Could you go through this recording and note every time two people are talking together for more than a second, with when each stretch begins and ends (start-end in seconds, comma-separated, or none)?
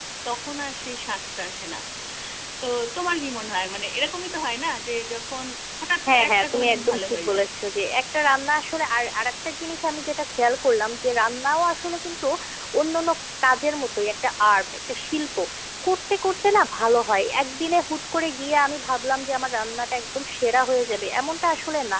6.1-7.5